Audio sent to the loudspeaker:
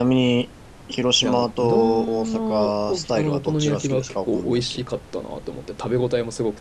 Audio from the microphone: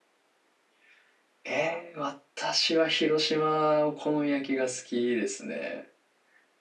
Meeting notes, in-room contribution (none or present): present